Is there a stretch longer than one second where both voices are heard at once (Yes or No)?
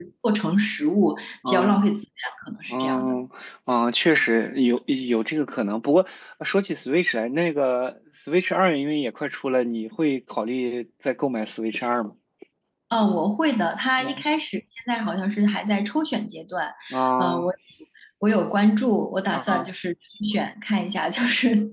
No